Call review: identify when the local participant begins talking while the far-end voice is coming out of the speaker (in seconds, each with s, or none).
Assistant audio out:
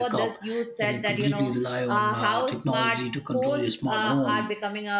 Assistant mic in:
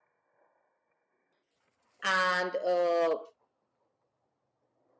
2.0 s